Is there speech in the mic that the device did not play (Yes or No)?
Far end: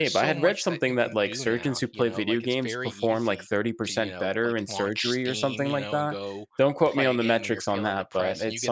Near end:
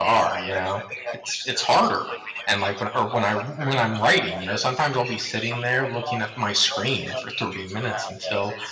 Yes